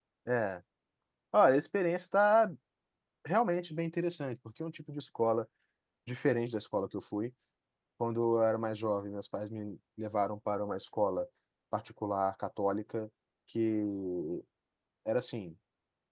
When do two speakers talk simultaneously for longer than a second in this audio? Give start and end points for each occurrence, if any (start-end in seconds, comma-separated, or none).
none